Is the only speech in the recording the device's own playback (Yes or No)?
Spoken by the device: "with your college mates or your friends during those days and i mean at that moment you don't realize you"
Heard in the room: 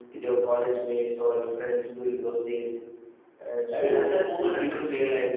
No